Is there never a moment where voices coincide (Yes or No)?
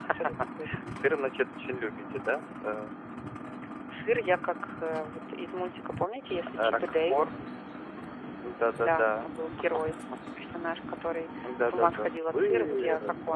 No